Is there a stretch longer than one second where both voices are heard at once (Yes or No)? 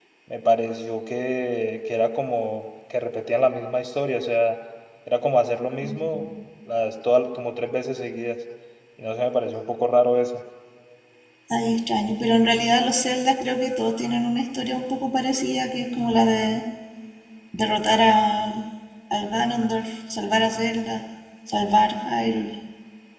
No